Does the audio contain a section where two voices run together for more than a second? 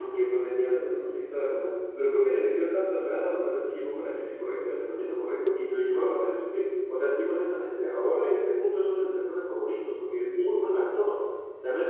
No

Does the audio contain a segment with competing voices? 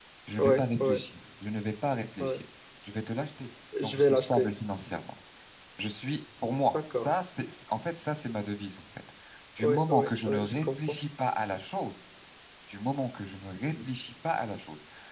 Yes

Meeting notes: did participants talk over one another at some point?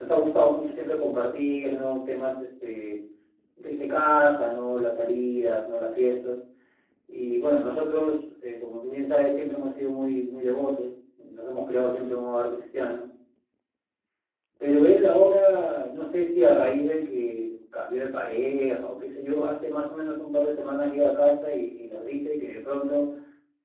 No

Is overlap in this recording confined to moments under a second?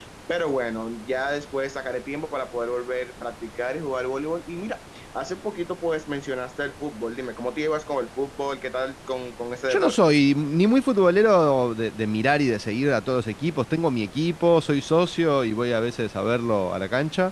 Yes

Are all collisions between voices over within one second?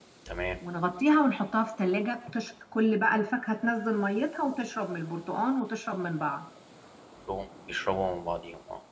Yes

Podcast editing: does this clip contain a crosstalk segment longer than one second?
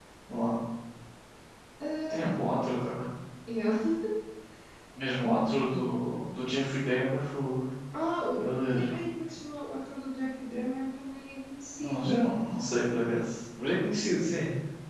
No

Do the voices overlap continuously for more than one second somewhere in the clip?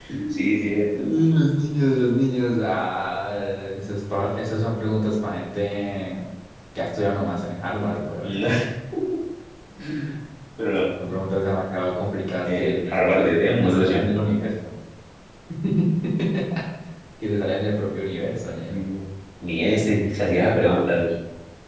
No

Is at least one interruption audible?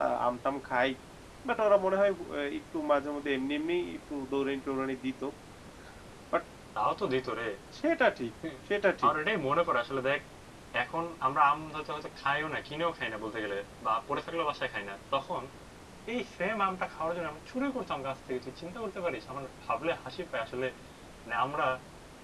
No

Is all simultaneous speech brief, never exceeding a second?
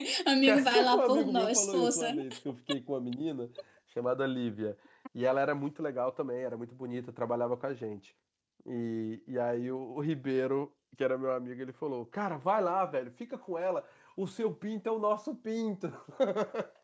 No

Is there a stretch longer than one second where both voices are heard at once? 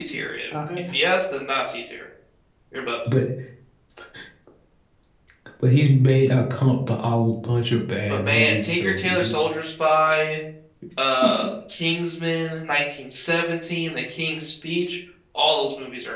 Yes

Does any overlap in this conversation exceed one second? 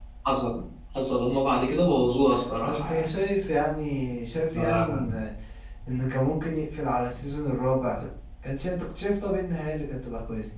No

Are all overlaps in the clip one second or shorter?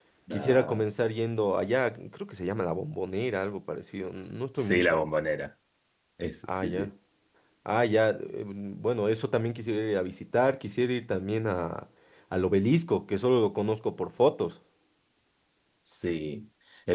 Yes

